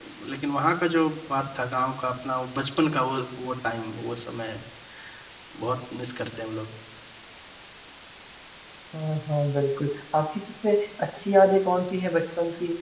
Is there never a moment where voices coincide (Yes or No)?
Yes